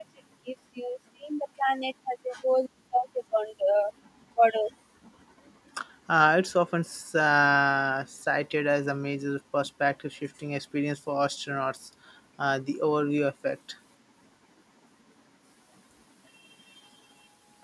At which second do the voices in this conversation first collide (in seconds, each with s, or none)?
none